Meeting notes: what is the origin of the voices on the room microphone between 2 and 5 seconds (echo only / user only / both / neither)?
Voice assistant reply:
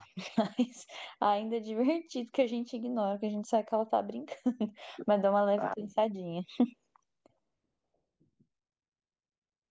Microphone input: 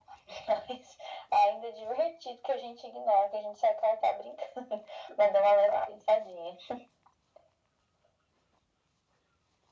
echo only